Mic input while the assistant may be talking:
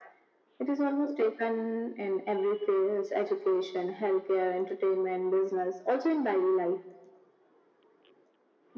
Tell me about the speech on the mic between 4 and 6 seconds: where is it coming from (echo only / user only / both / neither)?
echo only